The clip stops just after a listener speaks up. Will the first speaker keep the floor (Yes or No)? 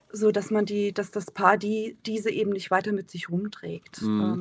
No